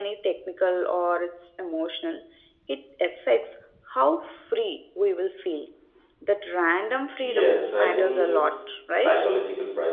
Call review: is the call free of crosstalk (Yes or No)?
No